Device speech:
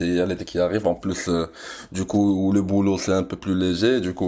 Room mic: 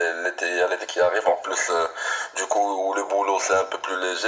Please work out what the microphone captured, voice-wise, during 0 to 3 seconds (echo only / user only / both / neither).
echo only